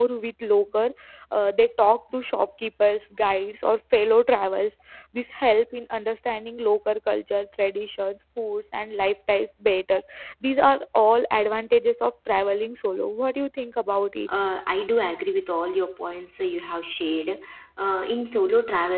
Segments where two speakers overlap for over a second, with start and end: none

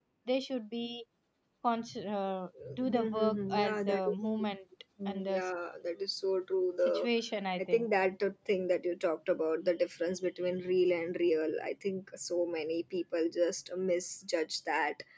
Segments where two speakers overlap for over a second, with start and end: 2.8-4.1

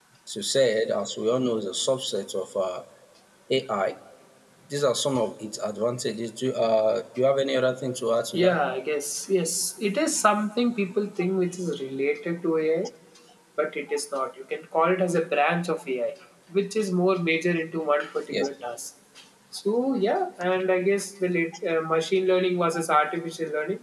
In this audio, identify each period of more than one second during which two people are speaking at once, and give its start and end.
none

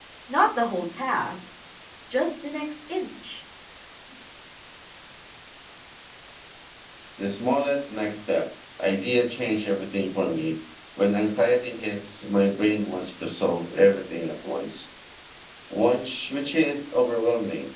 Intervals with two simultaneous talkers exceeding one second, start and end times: none

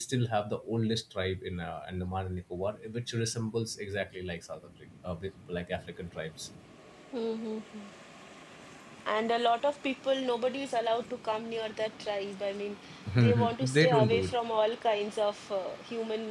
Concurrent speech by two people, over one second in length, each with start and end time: 13.2-14.4

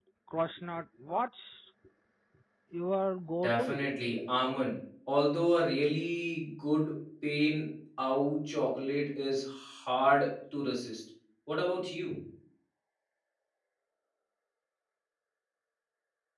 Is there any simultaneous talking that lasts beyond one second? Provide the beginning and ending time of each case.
none

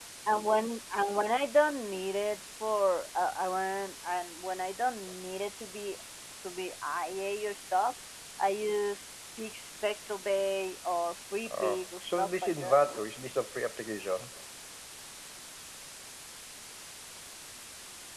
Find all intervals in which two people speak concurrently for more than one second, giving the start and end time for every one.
11.5-12.8

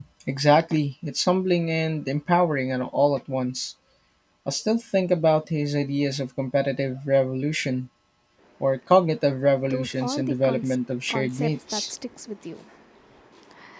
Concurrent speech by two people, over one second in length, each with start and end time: 9.7-11.9

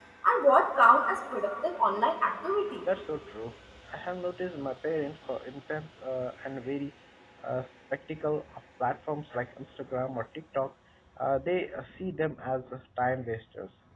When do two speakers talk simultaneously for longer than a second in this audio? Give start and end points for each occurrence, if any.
none

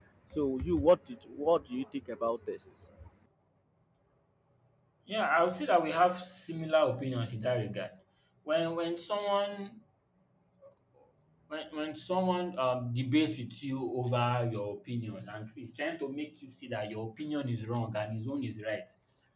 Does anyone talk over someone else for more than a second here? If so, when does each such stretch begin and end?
none

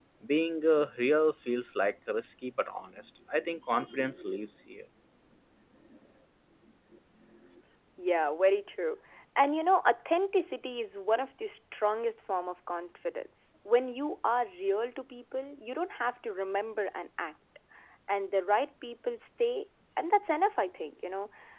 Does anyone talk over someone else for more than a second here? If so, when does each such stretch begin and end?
none

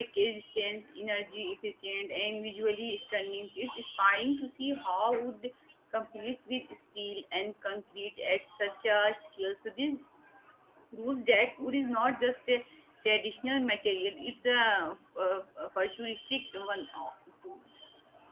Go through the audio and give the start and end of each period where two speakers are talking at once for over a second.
none

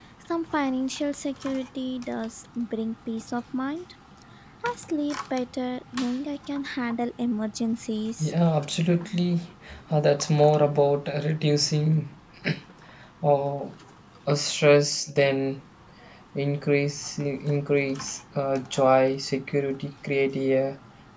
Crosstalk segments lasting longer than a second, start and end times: none

